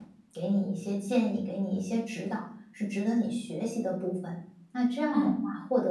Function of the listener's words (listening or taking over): listening